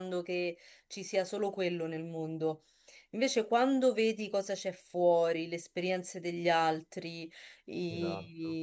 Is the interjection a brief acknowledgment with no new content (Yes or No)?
Yes